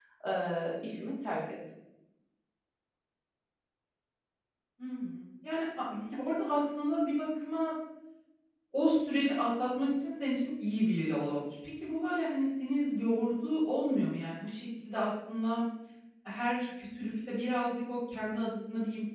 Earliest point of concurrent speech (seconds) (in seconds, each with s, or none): none